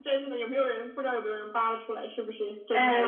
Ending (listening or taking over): taking over